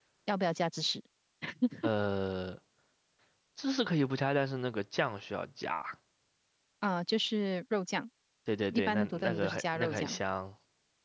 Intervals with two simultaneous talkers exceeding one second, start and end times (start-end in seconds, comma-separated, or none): 8.7-10.2